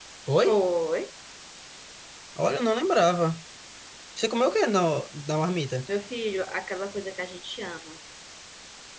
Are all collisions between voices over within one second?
Yes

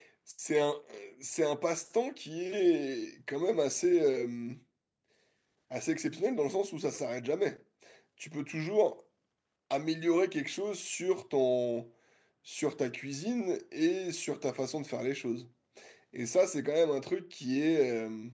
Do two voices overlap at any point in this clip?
No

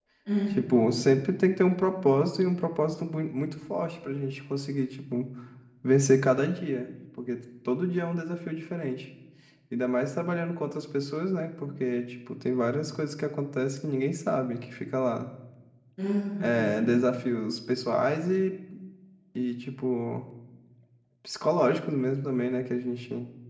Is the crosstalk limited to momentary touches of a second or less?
Yes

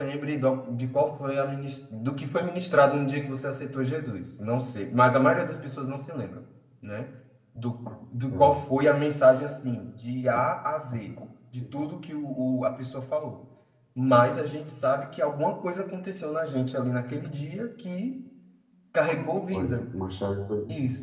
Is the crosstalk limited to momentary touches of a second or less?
Yes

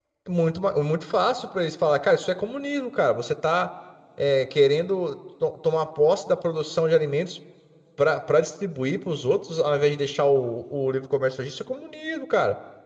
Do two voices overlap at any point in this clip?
No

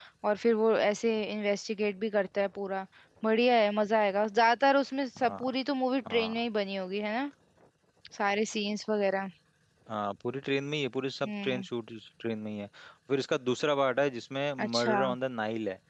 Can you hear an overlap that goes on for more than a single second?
No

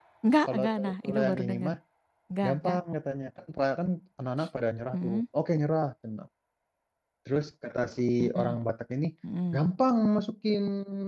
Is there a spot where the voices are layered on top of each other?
Yes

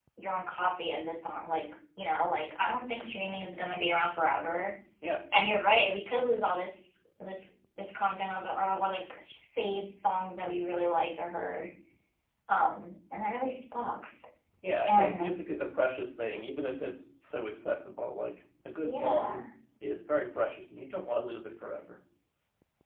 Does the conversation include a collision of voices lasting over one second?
No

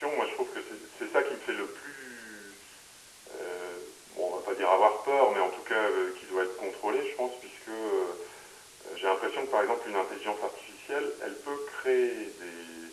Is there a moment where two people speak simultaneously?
No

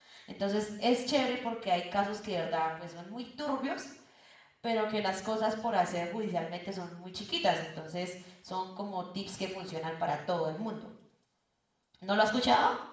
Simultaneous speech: No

